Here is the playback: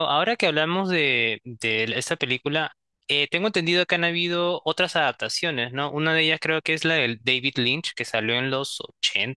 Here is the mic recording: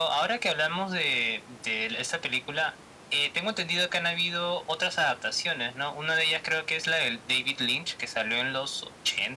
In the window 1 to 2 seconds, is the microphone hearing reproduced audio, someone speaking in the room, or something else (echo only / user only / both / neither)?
echo only